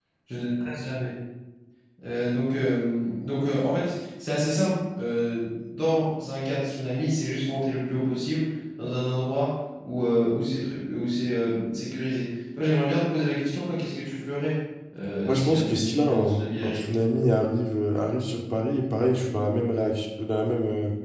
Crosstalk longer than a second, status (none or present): present